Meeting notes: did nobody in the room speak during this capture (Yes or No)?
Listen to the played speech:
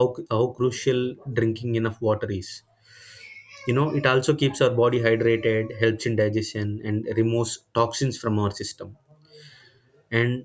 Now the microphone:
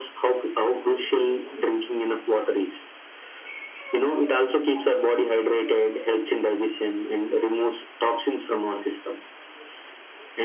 Yes